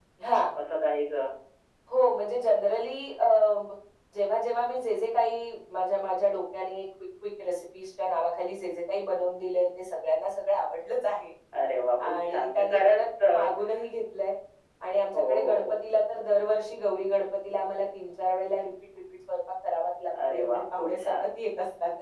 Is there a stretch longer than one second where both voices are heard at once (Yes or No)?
Yes